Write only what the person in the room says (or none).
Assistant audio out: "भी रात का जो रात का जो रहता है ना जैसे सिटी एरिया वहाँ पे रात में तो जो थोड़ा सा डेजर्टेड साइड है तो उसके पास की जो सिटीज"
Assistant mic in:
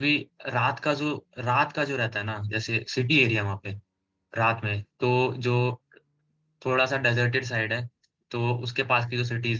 none